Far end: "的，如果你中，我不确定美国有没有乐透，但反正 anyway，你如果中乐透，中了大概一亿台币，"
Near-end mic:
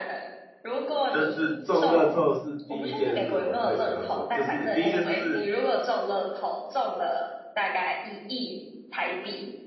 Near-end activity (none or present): present